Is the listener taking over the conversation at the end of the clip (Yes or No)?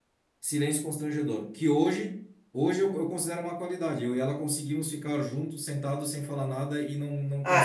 Yes